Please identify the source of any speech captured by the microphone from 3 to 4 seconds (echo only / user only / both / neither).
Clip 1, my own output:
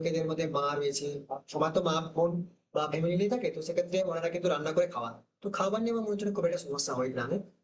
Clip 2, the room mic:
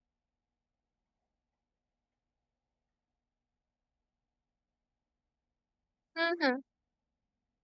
neither